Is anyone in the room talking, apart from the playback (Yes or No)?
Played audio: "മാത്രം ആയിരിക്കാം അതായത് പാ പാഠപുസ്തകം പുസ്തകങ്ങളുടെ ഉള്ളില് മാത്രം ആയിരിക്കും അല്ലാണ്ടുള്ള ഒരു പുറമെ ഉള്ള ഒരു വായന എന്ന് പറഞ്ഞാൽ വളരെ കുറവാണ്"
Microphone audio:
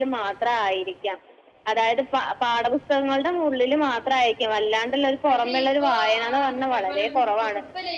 Yes